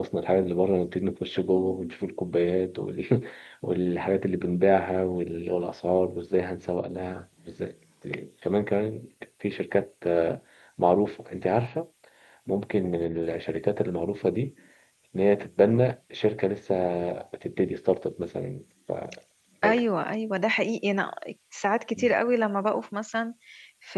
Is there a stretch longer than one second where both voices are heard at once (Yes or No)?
No